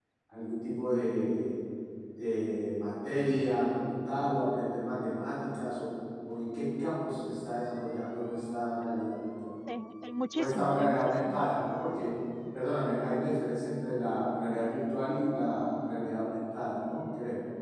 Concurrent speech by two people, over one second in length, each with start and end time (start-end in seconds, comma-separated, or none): 10.3-11.5